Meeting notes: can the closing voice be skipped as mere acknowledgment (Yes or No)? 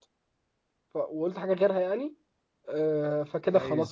Yes